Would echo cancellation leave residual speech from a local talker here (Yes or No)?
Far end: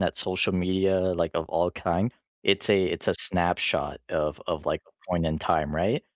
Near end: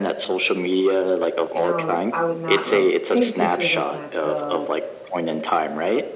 Yes